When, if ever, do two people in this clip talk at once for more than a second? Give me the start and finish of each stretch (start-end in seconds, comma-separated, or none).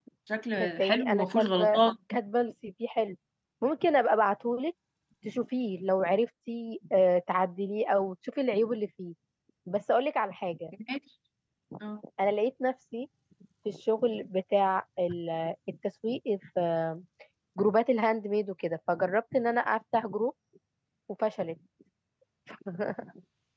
0.6-1.8